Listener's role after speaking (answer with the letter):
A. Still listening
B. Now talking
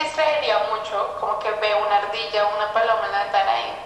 A